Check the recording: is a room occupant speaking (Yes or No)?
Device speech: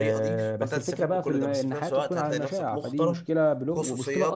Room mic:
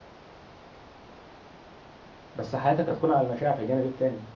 Yes